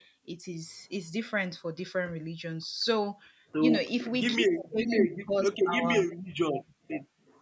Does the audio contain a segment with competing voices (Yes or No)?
Yes